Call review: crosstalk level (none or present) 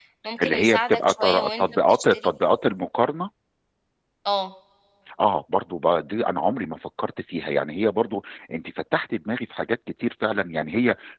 present